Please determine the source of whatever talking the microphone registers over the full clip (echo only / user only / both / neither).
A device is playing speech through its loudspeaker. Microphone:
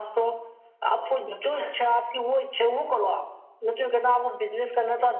echo only